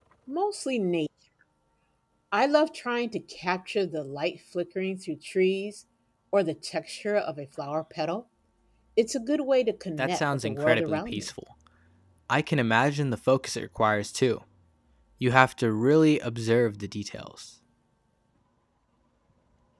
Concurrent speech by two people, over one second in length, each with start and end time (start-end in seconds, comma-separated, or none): 10.0-11.2